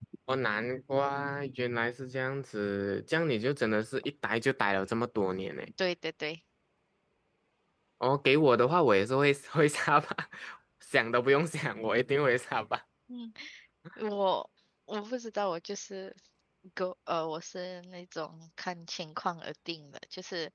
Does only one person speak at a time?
Yes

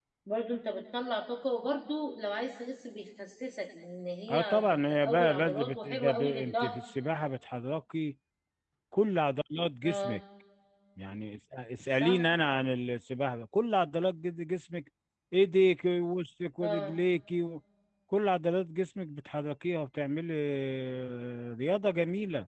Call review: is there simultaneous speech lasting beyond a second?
Yes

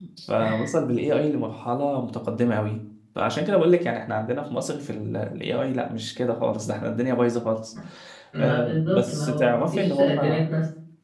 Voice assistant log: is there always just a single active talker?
No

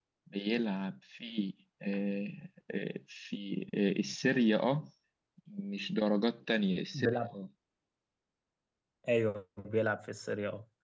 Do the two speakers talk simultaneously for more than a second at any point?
No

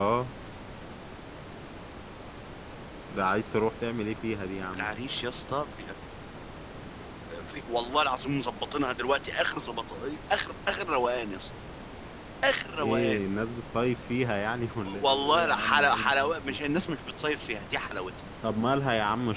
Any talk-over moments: Yes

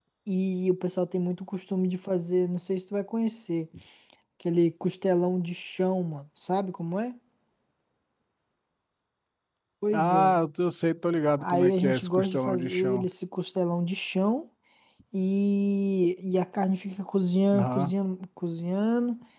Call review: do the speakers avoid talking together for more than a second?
No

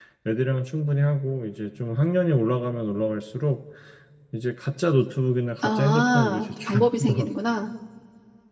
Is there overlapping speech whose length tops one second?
Yes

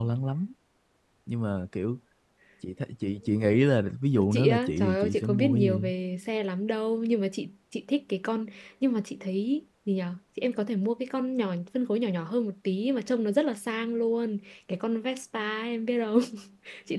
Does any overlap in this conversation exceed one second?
Yes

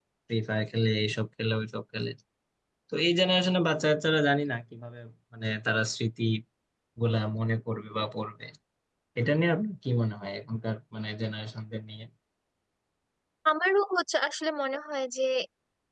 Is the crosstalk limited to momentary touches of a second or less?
Yes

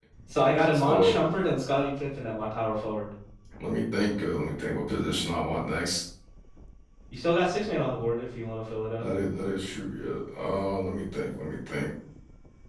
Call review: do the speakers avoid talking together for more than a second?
Yes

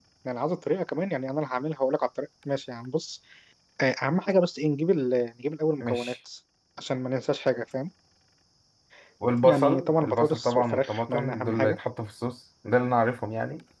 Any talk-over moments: Yes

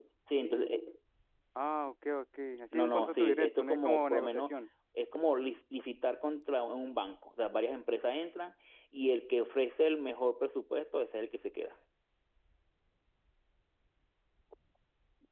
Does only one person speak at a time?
No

